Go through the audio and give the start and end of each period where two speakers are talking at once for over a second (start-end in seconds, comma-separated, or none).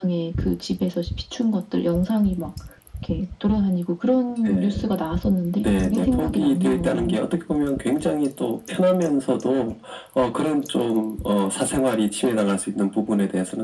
5.6-7.2